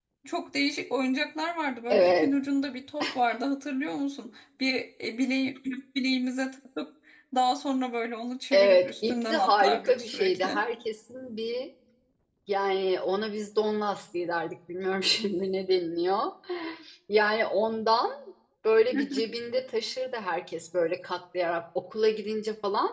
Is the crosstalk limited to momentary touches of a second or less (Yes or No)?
No